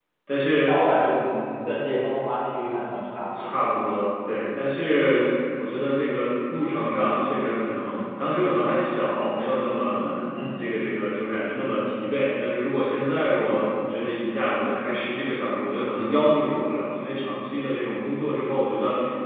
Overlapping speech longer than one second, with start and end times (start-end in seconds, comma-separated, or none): none